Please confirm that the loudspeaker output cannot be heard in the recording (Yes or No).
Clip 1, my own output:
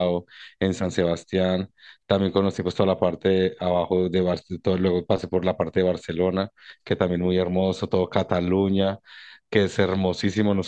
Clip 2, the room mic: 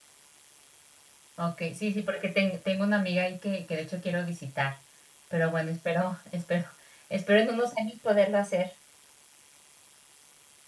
Yes